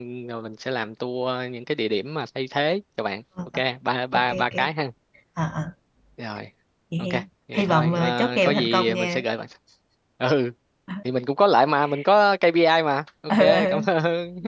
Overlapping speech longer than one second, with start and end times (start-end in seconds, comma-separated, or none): 7.5-9.2